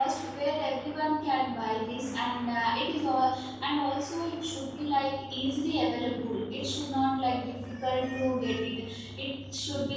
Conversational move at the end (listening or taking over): listening